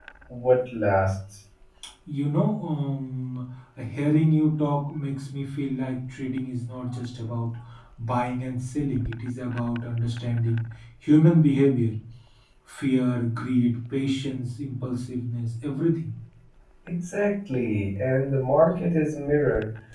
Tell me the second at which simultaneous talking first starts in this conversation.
none

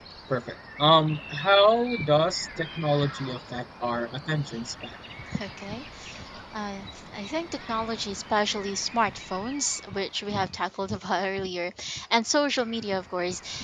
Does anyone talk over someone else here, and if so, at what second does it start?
none

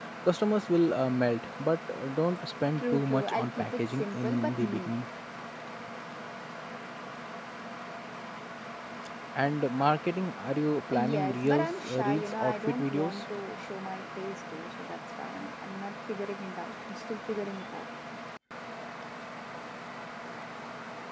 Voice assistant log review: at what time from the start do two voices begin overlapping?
2.8 s

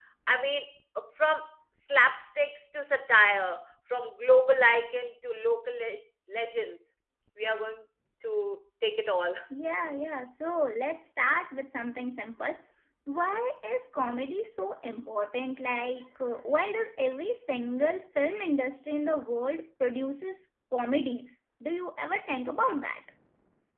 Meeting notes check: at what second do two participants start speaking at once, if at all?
none

